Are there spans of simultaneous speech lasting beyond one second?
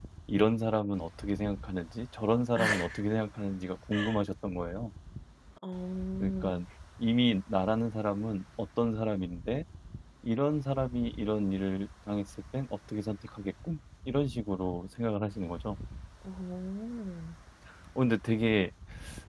No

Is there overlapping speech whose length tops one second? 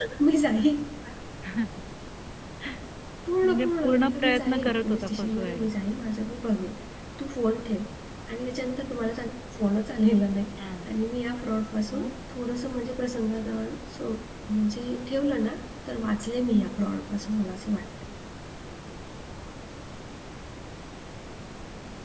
Yes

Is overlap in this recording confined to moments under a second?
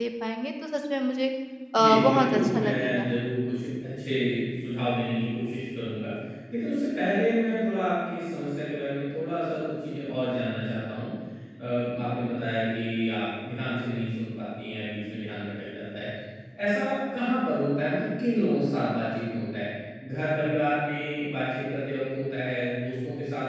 No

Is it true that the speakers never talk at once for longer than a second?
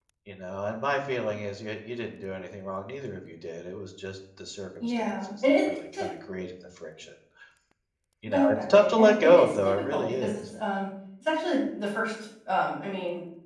No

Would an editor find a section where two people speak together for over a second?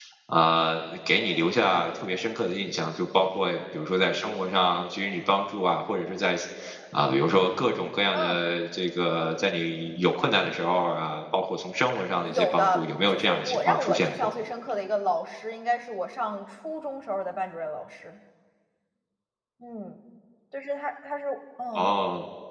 Yes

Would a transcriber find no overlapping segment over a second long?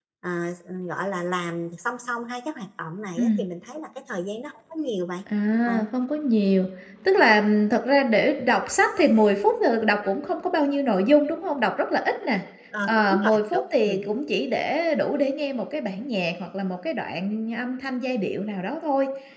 No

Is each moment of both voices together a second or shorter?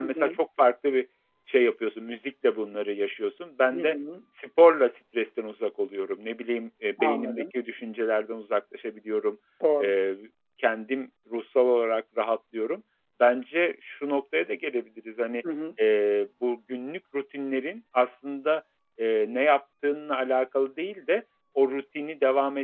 Yes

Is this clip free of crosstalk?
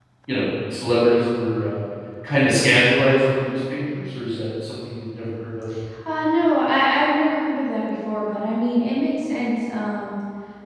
Yes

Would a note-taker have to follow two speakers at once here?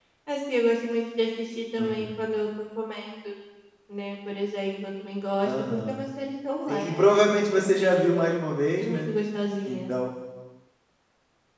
Yes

